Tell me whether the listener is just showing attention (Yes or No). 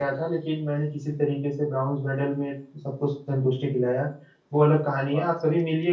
Yes